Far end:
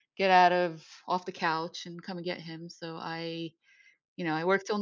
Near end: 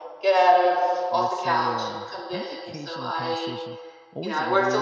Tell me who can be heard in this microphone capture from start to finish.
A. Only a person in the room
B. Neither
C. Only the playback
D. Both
D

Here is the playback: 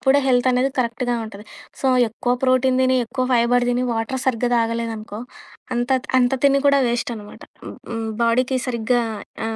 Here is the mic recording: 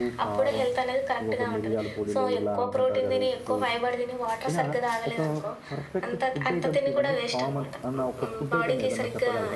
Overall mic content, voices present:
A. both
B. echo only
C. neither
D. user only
A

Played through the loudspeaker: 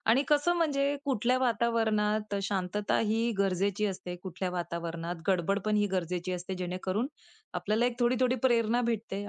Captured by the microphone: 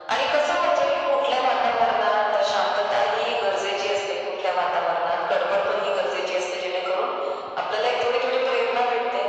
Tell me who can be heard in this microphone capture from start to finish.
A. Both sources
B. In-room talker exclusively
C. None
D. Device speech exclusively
D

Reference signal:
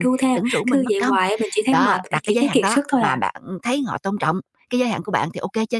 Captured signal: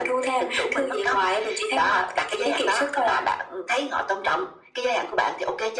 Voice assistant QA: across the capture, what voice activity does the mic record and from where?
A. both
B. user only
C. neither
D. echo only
D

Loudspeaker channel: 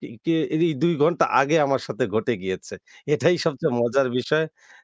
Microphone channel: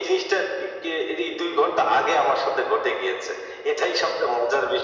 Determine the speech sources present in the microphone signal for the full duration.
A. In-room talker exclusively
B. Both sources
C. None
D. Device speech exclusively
D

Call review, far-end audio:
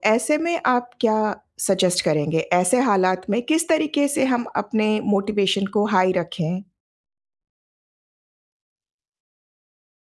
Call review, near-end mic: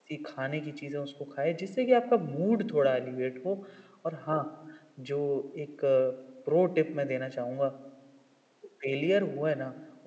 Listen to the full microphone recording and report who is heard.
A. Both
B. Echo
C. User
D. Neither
C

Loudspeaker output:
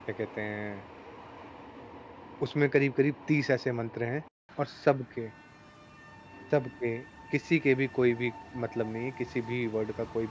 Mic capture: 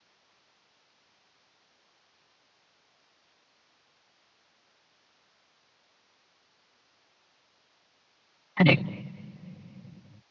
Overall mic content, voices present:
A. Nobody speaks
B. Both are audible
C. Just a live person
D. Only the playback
C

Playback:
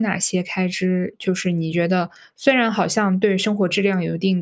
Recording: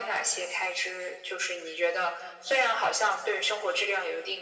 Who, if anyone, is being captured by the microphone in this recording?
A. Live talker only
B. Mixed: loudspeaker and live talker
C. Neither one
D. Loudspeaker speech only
D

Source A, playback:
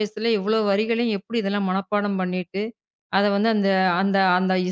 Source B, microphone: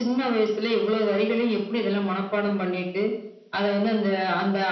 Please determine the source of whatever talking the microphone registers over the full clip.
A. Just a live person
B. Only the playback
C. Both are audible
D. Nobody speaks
B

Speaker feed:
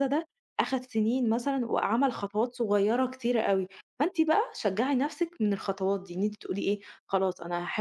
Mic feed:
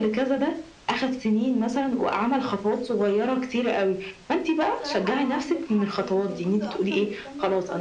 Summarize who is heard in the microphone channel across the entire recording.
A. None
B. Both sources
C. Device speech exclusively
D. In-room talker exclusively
B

